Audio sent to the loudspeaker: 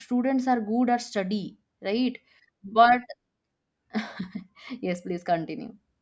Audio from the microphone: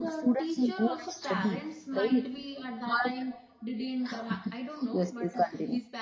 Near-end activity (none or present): present